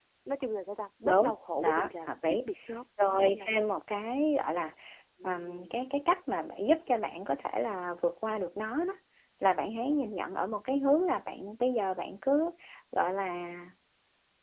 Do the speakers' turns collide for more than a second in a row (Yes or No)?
Yes